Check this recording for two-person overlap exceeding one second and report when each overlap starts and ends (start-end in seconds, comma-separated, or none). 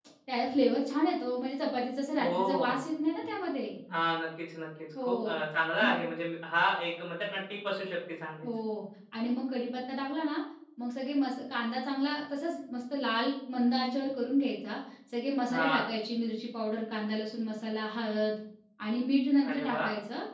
none